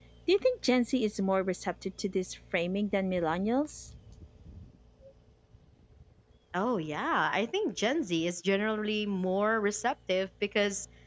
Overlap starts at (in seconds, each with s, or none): none